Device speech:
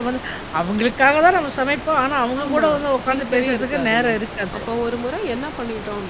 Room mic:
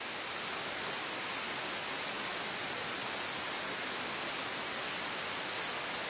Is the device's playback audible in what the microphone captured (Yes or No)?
No